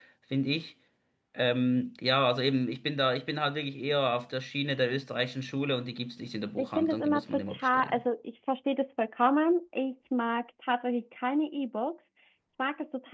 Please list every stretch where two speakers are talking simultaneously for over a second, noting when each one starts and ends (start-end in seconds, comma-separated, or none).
6.6-8.0